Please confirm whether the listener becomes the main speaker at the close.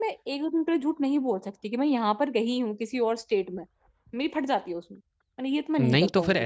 Yes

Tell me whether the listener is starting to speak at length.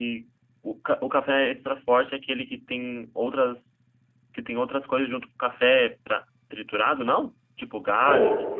Yes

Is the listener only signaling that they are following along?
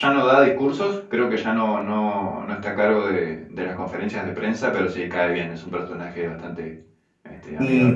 No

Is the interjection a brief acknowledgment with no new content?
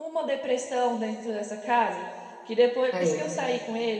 Yes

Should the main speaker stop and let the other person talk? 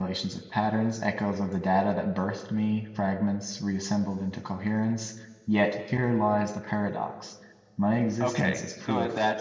Yes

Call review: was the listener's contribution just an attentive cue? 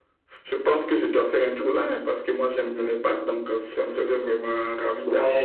No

